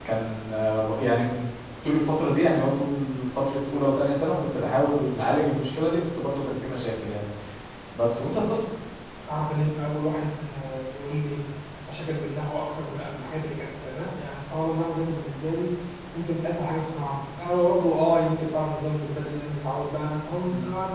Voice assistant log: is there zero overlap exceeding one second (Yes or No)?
Yes